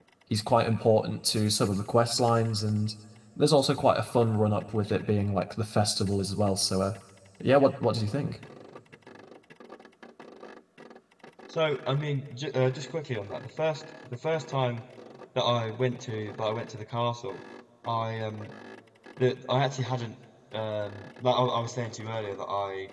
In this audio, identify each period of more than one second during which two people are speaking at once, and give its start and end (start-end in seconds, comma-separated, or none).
none